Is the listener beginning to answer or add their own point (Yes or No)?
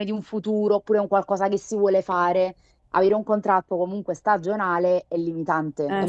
Yes